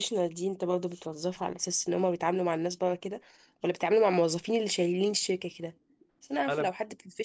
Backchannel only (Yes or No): Yes